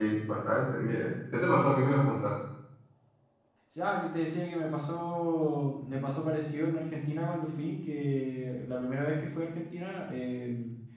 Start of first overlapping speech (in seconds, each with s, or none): none